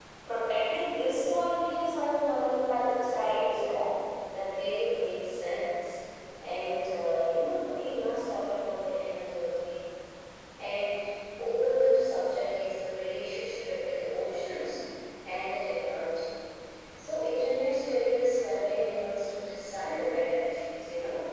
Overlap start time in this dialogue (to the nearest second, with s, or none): 3 s